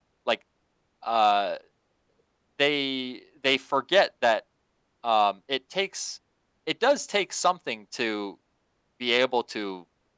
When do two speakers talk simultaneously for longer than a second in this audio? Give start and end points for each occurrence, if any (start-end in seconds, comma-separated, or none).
none